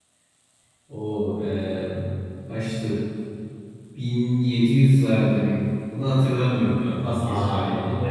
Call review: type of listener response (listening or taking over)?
taking over